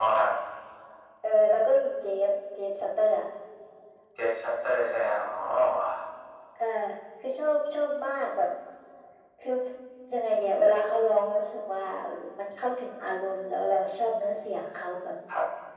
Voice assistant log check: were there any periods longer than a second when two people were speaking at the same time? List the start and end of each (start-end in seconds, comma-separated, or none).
none